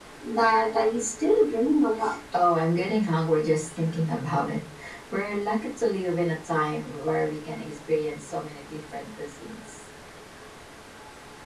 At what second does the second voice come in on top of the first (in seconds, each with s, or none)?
none